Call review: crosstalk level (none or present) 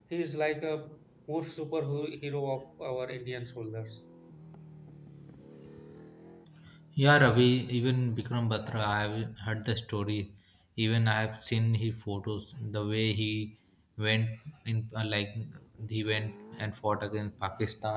none